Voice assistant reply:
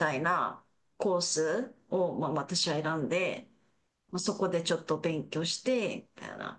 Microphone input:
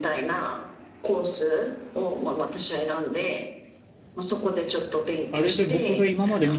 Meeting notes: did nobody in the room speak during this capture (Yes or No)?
No